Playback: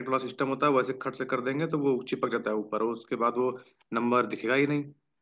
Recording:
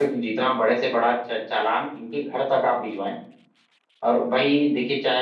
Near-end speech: present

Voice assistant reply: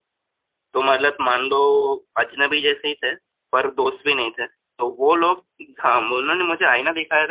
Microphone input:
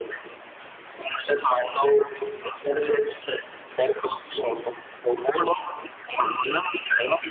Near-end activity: none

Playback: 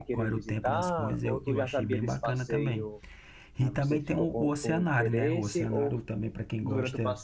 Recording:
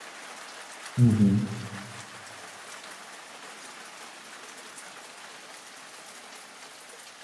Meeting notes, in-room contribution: present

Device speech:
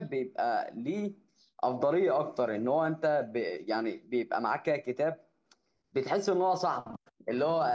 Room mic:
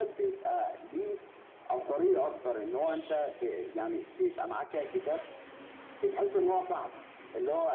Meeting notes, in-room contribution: none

